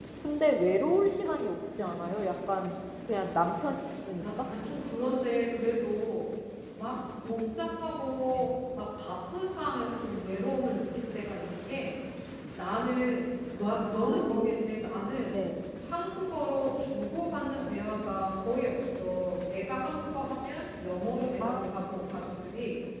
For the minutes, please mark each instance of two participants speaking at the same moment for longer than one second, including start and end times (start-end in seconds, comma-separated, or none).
none